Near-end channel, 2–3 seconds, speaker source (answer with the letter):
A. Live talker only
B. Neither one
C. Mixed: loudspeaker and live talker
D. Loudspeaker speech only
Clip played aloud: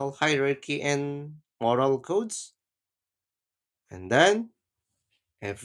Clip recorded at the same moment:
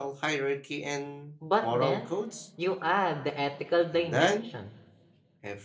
C